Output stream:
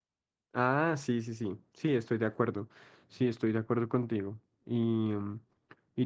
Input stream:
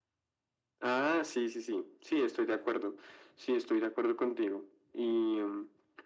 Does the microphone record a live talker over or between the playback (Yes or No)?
No